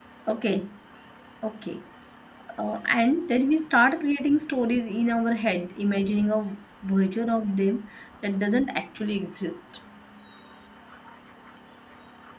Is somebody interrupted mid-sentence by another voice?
No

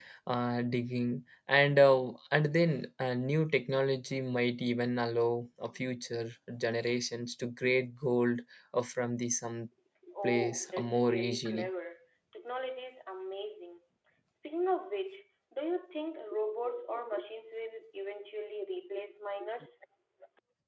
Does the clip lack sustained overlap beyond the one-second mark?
No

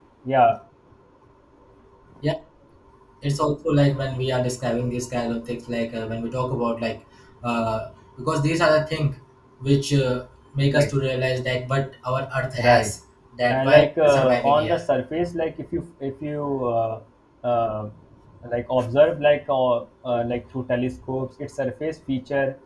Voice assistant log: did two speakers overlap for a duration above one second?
Yes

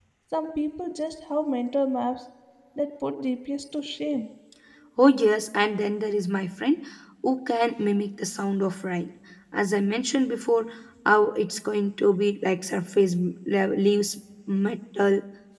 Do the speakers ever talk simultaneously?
No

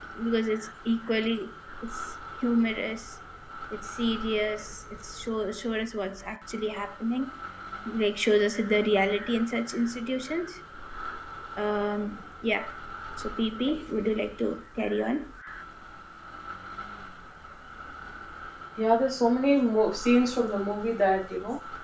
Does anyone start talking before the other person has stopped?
No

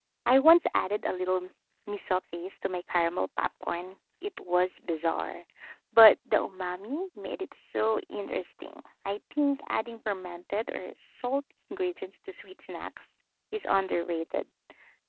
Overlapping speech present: No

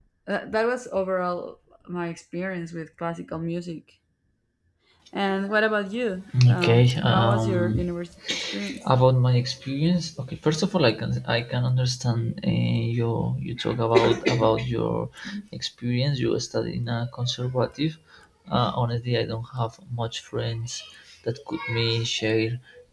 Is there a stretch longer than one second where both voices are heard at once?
Yes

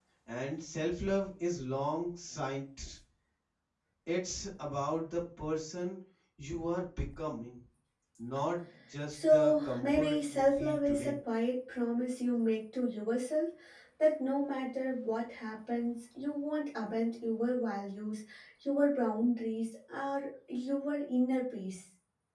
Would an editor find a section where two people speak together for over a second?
Yes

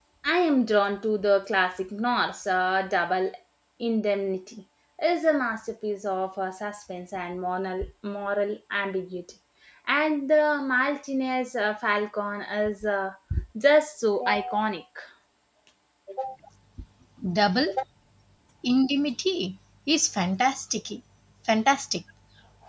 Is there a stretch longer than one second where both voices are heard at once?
No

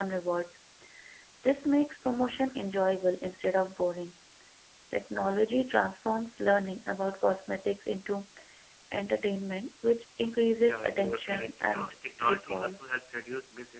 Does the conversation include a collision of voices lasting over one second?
Yes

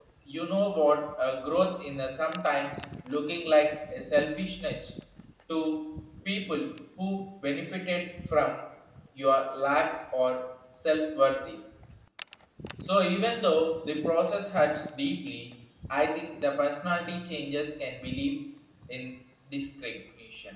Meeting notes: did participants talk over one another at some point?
No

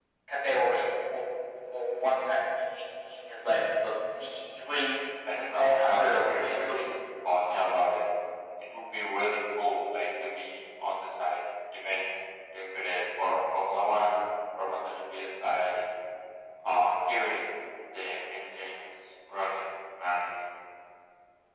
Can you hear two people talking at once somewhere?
Yes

